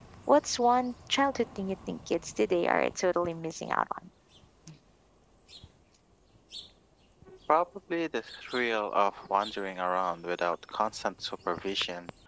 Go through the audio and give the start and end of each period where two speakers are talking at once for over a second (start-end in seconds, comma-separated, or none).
none